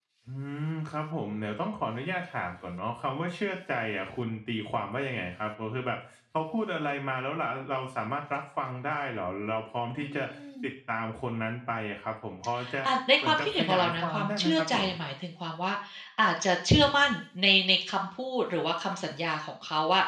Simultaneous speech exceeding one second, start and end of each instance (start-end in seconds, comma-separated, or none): 13.2-14.9